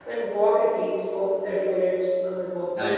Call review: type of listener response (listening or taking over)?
taking over